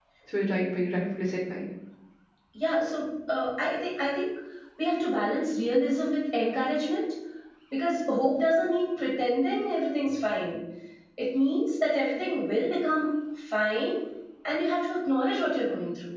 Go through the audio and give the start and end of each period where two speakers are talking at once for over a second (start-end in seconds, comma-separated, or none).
none